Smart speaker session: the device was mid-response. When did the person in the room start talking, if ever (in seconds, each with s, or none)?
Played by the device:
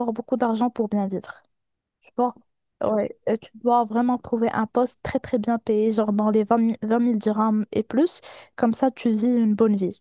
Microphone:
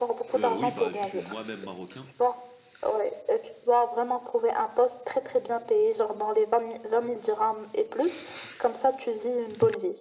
0.3 s